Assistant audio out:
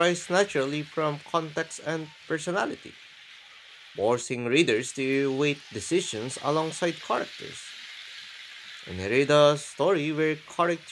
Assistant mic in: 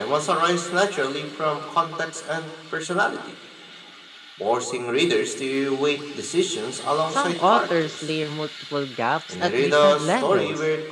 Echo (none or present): present